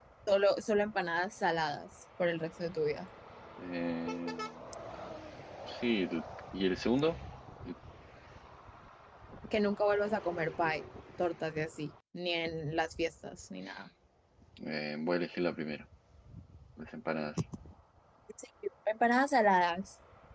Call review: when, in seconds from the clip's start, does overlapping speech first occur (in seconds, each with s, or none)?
none